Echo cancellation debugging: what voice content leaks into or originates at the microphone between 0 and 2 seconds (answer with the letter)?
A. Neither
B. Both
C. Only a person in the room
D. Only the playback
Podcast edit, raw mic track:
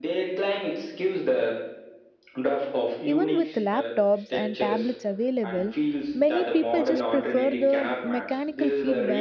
D